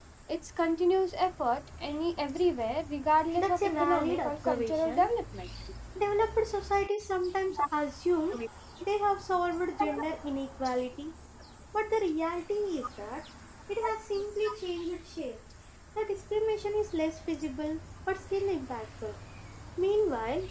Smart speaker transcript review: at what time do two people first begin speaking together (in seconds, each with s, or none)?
3.4 s